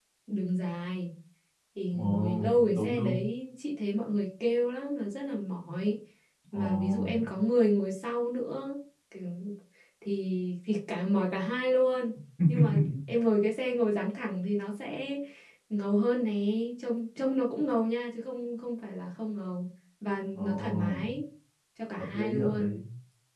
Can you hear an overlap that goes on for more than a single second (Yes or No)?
Yes